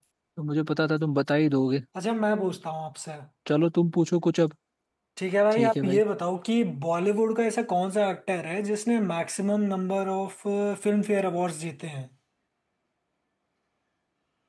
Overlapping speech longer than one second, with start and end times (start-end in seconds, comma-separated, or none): none